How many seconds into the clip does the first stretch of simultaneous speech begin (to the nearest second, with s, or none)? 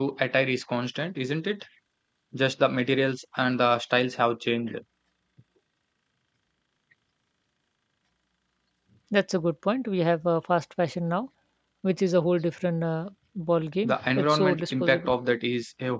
14 s